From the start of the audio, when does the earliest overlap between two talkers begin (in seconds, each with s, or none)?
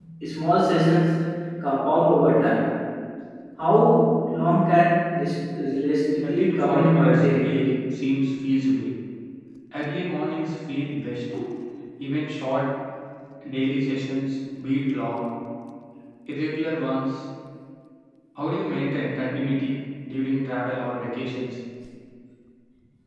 6.2 s